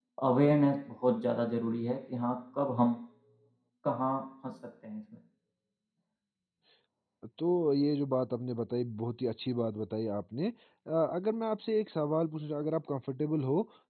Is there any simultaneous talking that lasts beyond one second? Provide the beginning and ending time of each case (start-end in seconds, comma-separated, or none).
none